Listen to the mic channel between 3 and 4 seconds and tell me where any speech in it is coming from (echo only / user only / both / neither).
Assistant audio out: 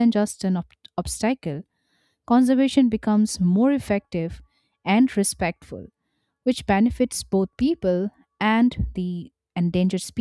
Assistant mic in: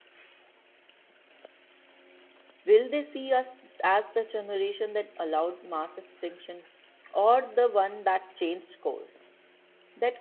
user only